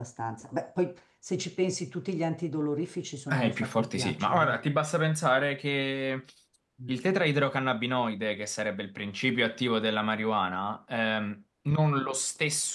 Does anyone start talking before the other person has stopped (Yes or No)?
Yes